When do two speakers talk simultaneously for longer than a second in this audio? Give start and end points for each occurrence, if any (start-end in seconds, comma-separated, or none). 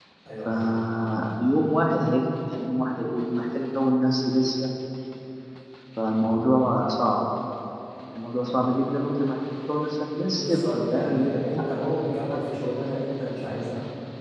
10.4-12.7